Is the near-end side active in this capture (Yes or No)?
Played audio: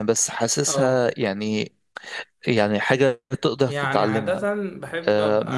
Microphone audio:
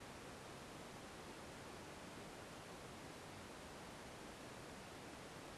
No